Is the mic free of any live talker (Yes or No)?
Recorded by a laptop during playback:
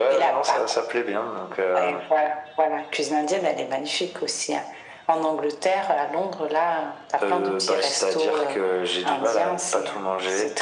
Yes